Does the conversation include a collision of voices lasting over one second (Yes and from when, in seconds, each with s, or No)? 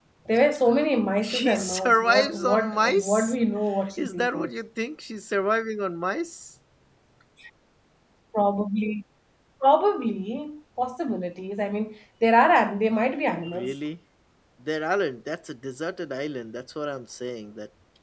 Yes, from 1.2 s